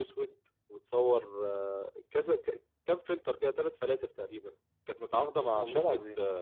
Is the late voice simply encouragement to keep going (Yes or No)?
Yes